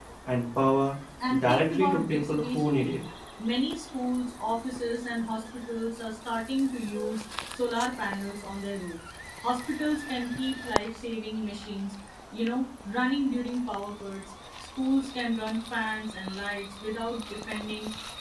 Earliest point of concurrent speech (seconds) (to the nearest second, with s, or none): 1 s